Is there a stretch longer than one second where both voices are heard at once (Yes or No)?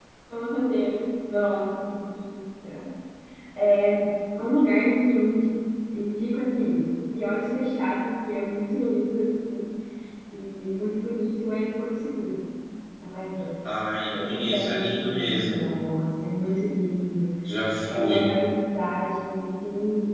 Yes